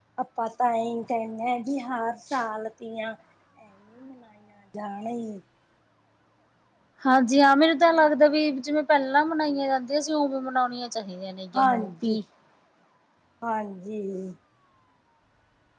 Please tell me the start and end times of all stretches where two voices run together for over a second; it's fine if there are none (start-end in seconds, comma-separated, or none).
none